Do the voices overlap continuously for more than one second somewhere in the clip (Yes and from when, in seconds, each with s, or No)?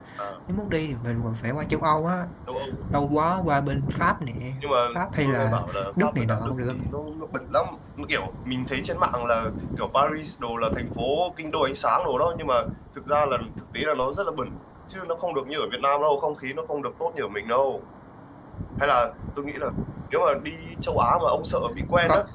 Yes, from 5.2 s